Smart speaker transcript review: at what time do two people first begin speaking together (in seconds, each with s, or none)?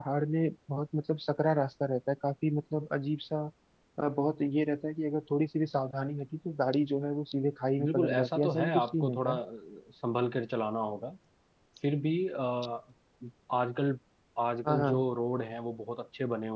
7.8 s